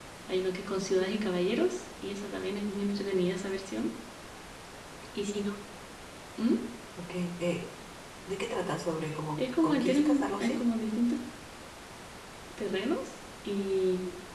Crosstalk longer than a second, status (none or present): present